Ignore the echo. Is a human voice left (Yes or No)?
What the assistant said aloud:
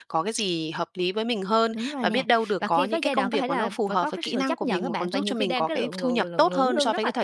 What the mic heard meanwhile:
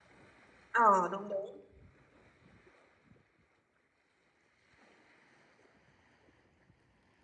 Yes